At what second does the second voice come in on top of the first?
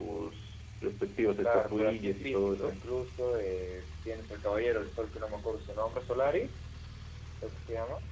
1 s

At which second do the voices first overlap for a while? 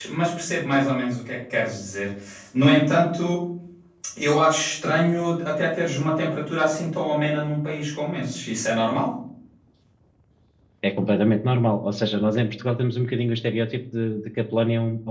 none

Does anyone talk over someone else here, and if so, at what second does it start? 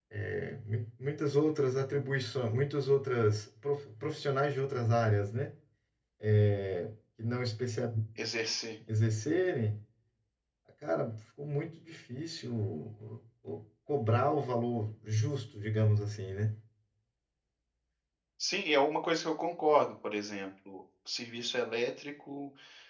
none

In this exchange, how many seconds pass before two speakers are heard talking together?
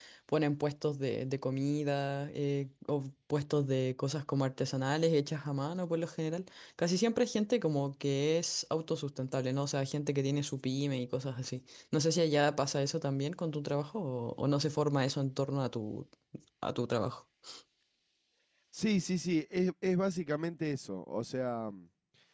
none

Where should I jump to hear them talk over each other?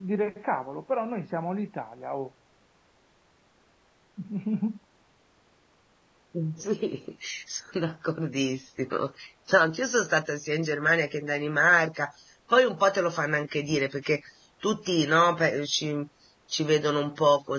none

